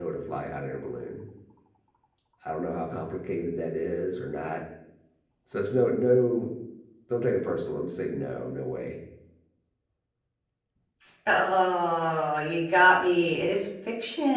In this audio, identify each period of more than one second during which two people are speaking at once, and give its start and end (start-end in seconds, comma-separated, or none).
none